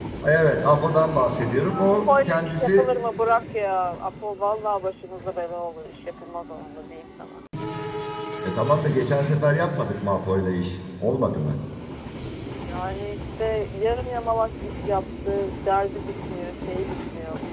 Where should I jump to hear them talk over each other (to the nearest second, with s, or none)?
1 s